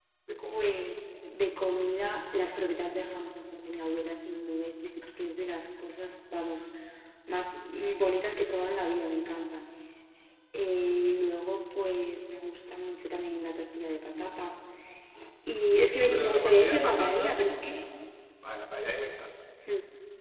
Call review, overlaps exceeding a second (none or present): present